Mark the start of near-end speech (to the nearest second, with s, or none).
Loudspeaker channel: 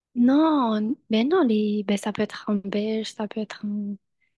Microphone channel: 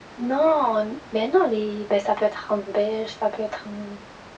none